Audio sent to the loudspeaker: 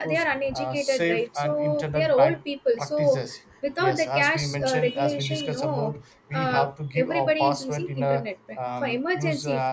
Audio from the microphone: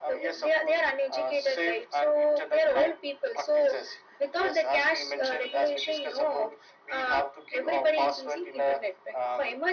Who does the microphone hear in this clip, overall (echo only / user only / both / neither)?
echo only